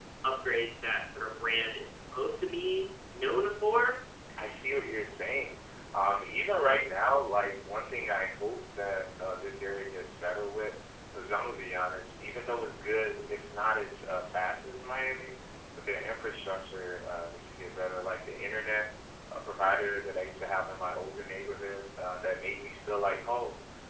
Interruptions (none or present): none